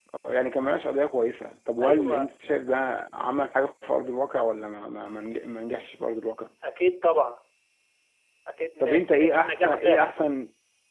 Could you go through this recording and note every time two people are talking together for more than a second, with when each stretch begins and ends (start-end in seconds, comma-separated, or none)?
8.8-10.2